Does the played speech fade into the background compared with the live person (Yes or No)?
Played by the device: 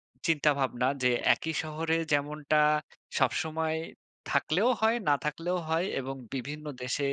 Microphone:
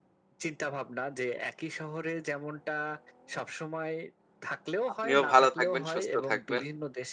Yes